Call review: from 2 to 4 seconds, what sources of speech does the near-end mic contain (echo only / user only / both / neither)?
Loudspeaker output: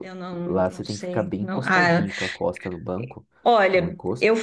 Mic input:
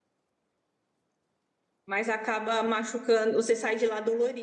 user only